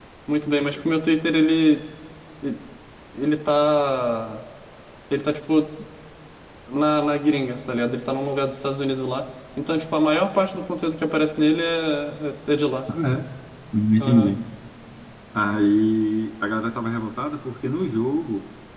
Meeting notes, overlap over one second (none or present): none